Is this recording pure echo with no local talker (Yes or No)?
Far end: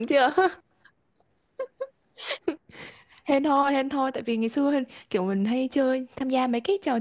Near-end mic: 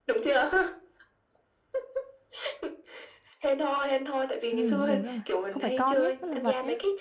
No